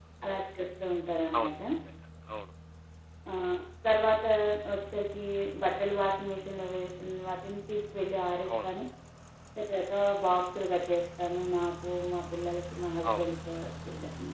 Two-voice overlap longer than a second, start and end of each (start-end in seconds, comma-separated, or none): none